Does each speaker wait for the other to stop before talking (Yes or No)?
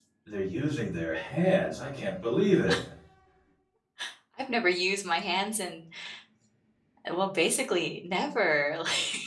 Yes